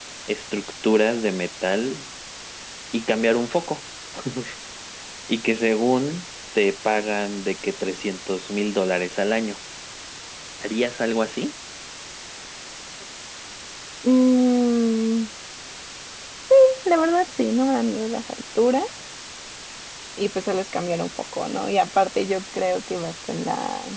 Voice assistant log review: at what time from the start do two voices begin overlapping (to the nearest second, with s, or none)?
none